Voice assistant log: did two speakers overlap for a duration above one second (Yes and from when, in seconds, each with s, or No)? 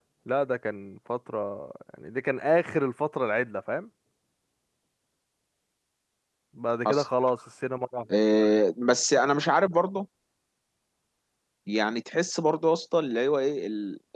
No